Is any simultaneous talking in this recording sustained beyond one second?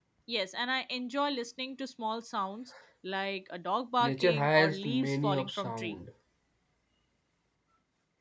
Yes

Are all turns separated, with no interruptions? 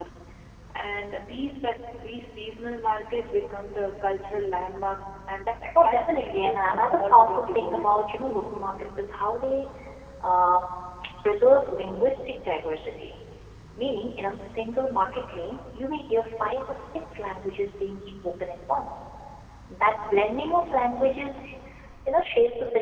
No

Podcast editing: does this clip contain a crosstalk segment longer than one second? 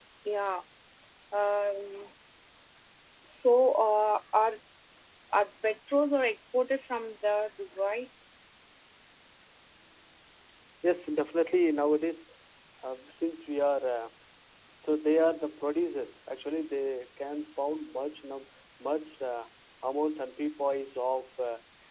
No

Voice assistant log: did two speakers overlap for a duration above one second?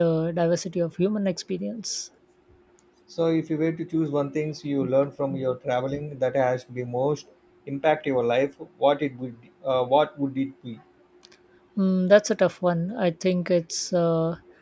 No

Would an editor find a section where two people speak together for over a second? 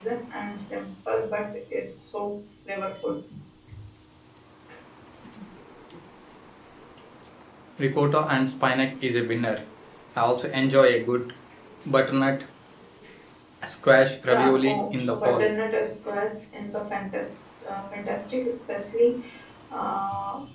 Yes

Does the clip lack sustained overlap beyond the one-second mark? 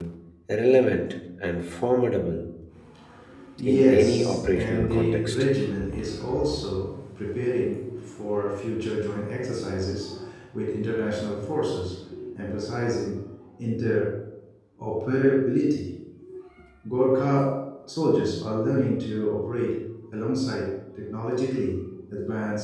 No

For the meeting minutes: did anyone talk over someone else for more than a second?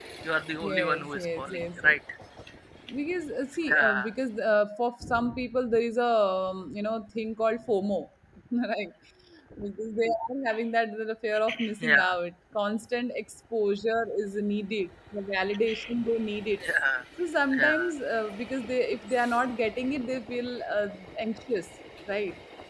Yes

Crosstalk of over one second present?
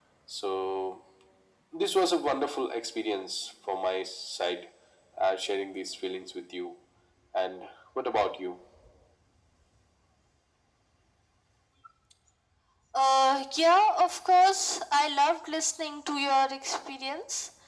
No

